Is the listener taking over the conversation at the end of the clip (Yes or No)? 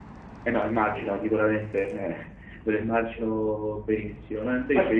No